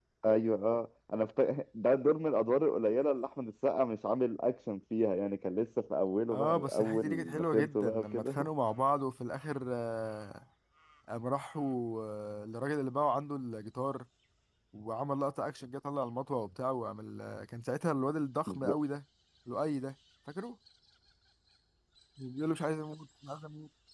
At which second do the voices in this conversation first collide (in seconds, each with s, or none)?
6.3 s